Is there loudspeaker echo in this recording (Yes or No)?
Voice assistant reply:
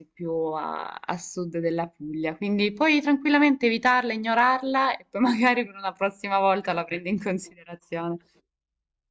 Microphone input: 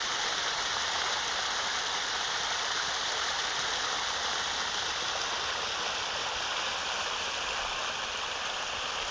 No